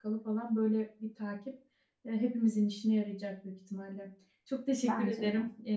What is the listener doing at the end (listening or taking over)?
listening